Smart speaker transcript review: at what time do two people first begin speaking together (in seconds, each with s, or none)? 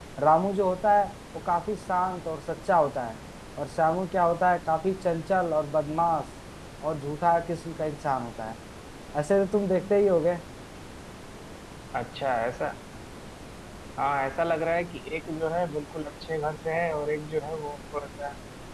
none